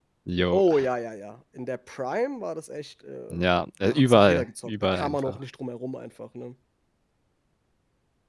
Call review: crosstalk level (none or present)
present